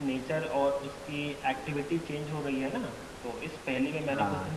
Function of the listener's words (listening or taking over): listening